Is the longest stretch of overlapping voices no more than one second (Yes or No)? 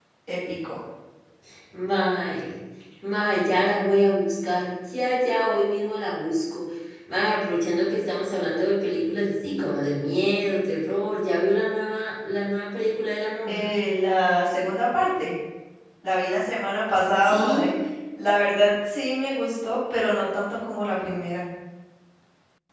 Yes